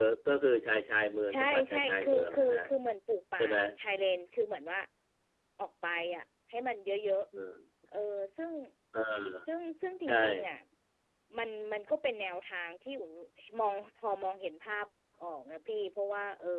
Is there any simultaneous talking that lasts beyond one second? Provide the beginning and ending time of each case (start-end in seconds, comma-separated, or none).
1.3-2.6